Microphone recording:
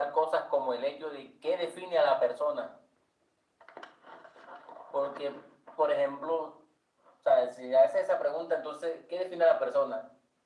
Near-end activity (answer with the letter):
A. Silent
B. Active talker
A